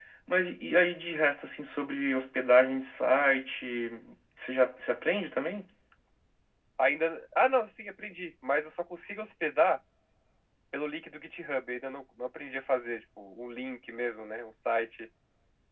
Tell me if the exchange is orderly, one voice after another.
Yes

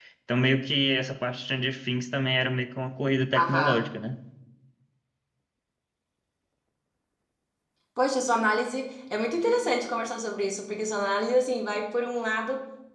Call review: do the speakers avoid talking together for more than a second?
Yes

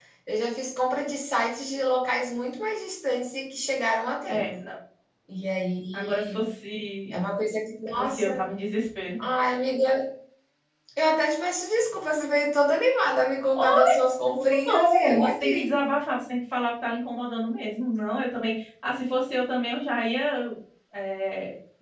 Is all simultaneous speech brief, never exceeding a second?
No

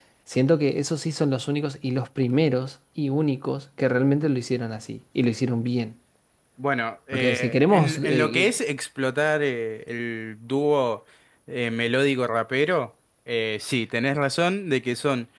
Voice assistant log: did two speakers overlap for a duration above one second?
Yes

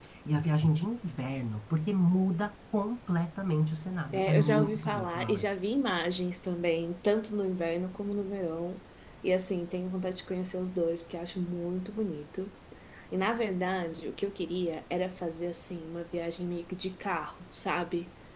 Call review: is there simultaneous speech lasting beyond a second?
Yes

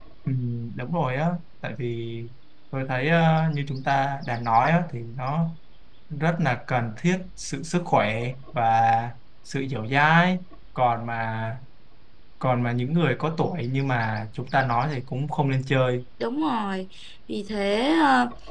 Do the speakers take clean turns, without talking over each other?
Yes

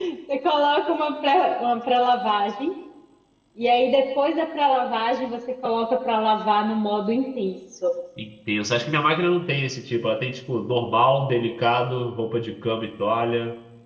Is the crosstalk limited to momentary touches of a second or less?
Yes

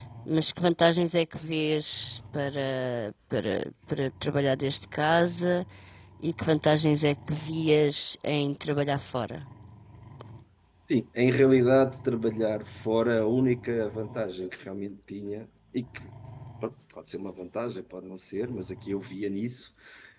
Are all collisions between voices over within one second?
Yes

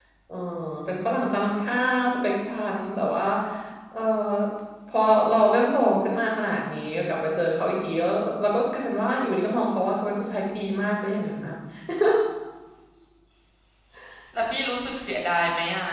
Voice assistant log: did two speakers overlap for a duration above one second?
No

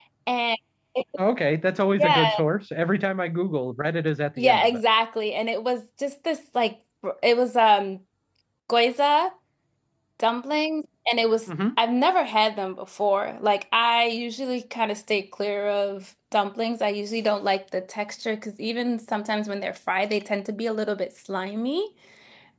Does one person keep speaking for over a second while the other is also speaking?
No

